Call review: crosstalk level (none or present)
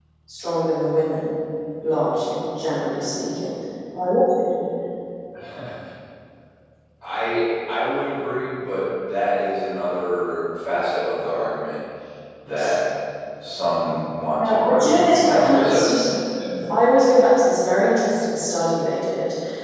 present